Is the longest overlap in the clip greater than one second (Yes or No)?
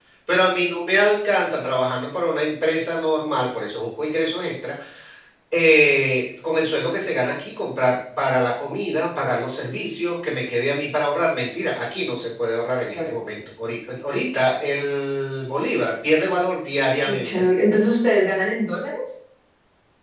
No